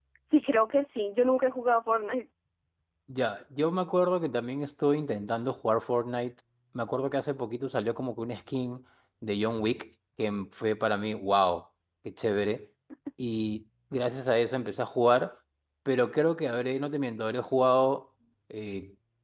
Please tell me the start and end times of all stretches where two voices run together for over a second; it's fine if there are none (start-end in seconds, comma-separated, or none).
none